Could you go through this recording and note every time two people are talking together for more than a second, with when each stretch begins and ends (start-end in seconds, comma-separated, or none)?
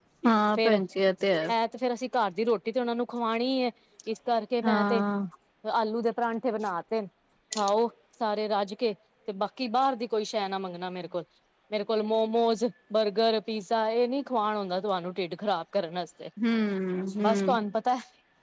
none